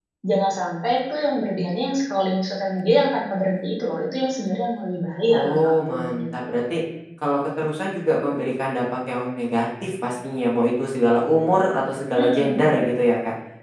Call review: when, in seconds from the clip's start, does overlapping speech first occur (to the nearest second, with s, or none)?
5 s